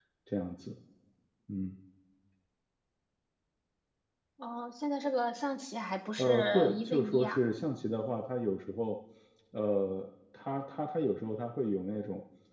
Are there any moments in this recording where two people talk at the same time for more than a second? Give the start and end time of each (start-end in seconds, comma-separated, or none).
6.2-7.4